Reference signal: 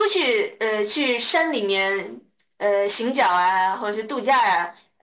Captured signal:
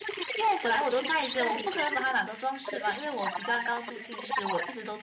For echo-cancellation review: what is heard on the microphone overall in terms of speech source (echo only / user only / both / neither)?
both